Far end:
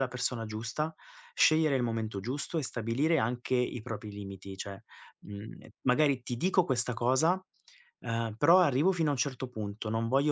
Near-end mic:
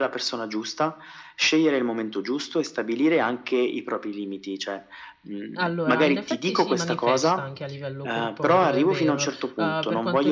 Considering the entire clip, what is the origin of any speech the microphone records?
both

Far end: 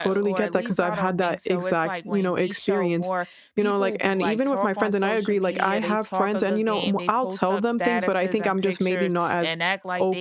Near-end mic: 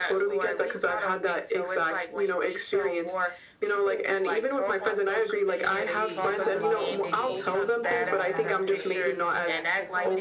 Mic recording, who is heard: both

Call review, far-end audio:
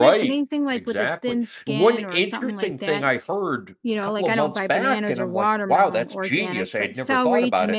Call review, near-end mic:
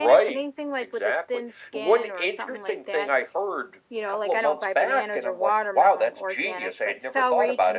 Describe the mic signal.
echo only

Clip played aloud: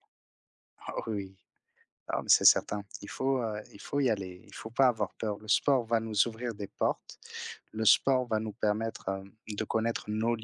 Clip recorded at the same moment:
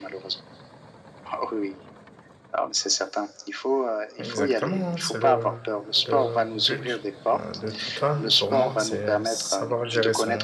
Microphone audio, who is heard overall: both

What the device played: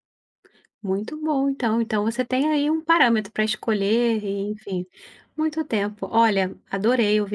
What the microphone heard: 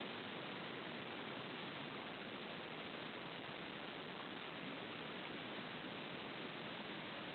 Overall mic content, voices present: neither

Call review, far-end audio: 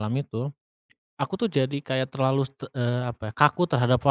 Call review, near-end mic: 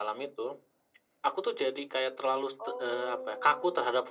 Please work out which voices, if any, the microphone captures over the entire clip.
both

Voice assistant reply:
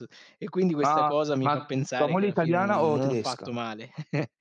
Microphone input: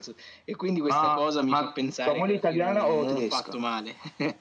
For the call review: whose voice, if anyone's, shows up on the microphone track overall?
echo only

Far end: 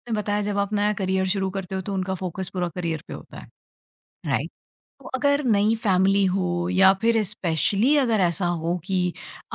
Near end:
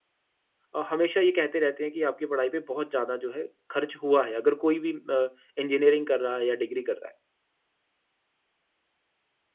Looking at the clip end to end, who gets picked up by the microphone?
user only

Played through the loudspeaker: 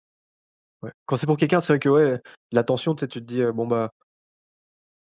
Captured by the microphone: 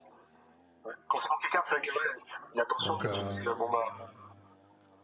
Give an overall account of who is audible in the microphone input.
both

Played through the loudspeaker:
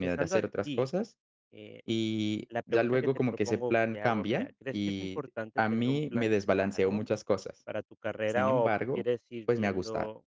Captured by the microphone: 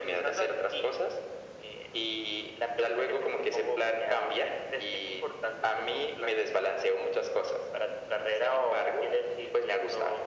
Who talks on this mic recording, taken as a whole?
echo only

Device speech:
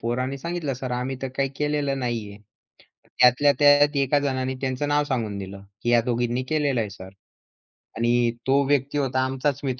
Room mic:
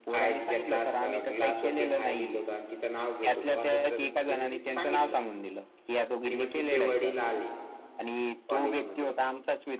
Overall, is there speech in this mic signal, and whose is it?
both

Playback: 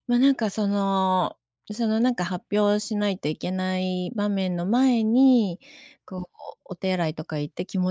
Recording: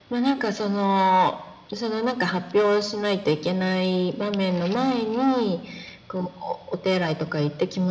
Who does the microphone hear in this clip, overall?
echo only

